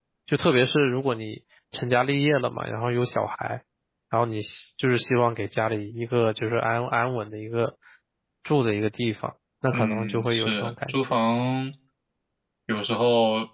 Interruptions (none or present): present